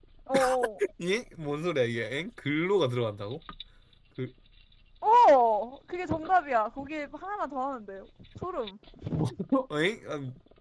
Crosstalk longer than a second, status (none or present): none